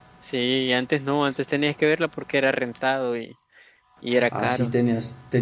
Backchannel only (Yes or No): No